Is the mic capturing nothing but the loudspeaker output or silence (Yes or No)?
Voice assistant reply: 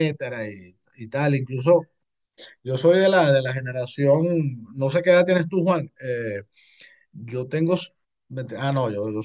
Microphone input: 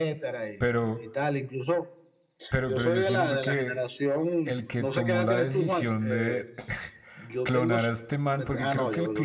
No